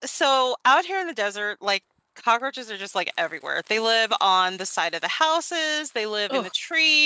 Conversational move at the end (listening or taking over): listening